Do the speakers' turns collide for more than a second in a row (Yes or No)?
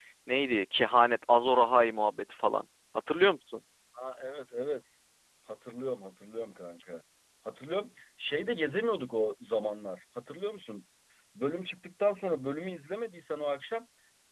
No